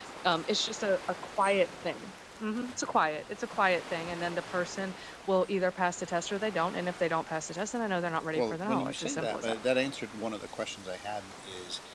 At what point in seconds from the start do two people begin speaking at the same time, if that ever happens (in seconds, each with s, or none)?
8.4 s